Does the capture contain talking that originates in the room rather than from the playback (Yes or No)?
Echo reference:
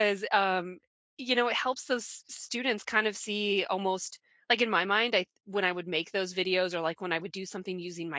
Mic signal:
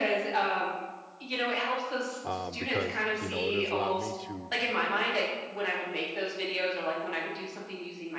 Yes